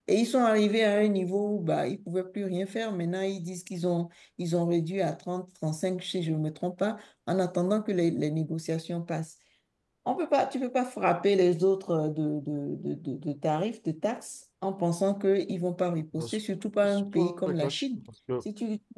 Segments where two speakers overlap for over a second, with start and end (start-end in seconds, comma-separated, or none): 16.8-18.0